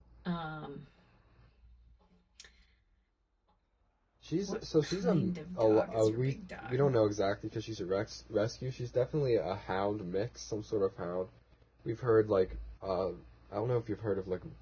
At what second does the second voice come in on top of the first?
4.4 s

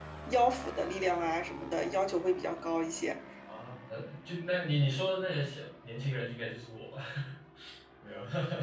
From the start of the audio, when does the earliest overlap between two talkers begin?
none

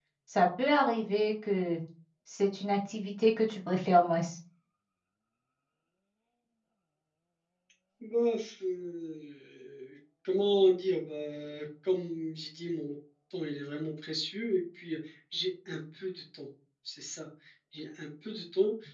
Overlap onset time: none

